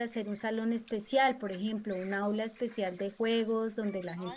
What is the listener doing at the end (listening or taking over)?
taking over